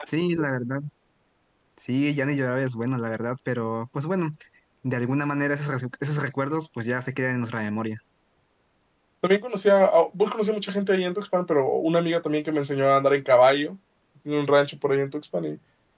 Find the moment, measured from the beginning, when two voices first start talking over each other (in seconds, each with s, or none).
none